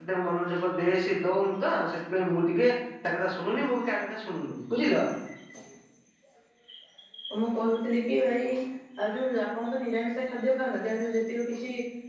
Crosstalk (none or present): none